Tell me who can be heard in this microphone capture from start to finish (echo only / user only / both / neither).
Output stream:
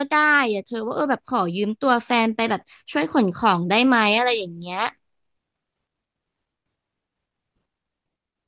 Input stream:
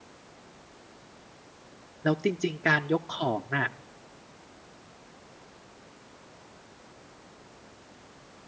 user only